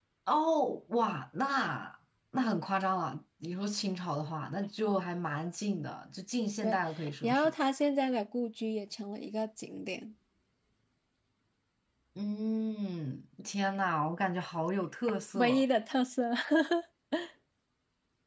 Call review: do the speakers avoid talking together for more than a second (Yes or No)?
Yes